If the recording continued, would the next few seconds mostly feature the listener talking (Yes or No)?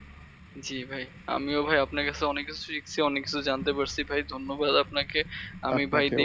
No